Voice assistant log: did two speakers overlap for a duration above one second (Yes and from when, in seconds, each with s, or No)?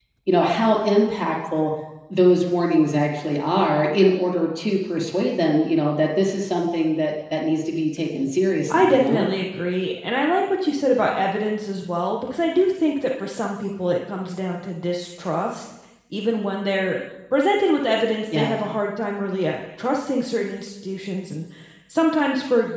No